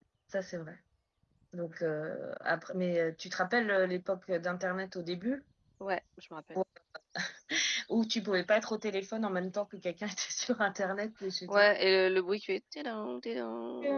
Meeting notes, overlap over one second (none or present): none